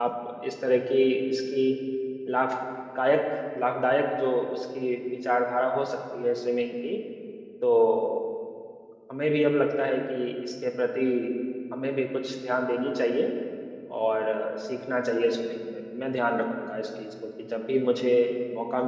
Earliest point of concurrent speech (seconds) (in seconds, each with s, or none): none